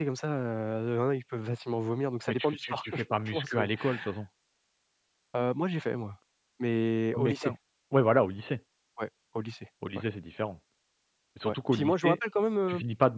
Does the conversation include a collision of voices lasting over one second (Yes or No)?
Yes